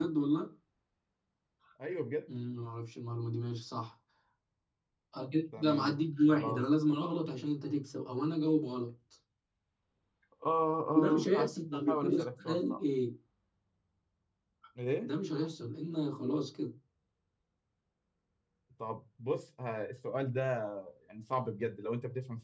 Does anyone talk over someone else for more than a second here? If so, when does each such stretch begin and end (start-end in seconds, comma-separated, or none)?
11.0-12.8